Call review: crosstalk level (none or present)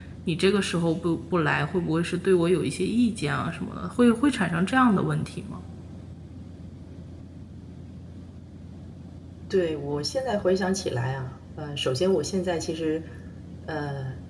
none